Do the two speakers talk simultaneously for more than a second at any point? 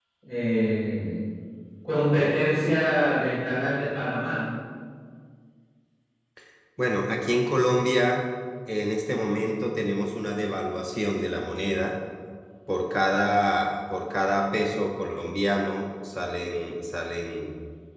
No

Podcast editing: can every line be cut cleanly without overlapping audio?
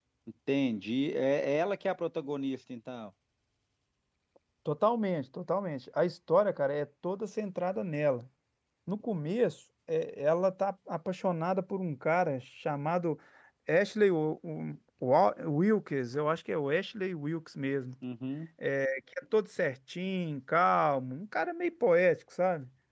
Yes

